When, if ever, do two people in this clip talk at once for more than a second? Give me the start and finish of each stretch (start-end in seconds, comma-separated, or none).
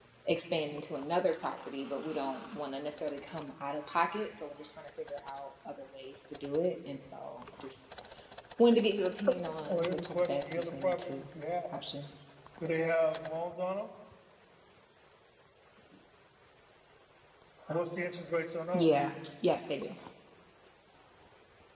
9.7-11.2